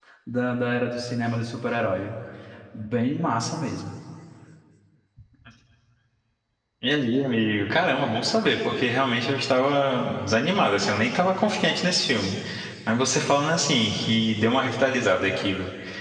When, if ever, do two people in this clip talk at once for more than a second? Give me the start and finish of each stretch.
none

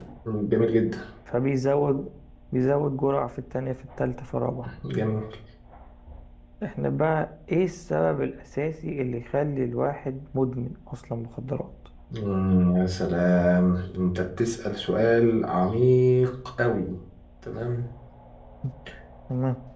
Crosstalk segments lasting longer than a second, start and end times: none

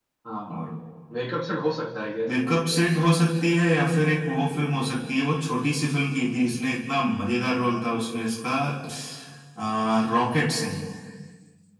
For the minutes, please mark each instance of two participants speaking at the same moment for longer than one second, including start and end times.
none

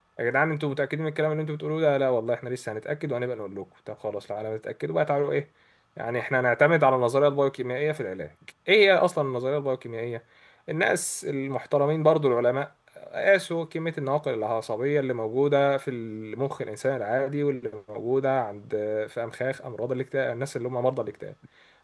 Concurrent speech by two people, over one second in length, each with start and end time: none

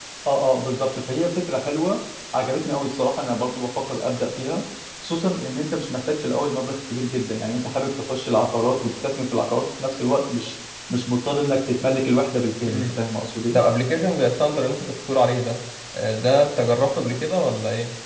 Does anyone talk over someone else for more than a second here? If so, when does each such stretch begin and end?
none

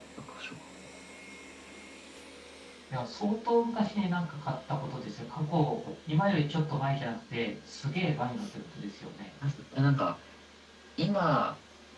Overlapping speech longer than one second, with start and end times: none

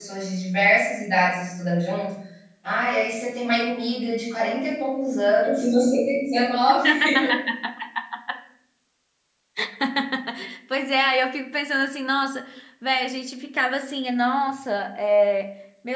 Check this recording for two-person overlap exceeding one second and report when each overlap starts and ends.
none

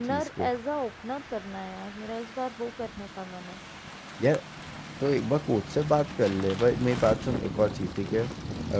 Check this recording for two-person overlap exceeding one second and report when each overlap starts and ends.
none

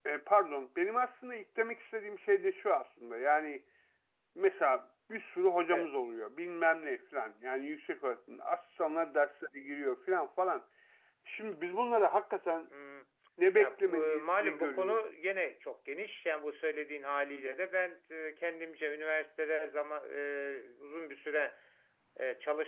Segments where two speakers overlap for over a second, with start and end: 13.6-15.0

